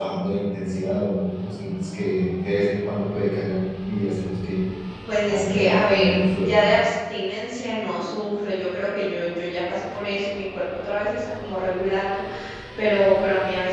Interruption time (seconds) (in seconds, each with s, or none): 5.3 s